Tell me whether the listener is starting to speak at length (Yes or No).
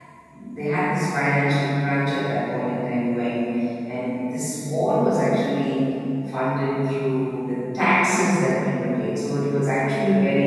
No